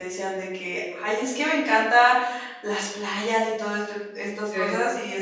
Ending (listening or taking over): listening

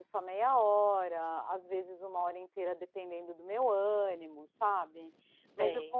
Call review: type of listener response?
listening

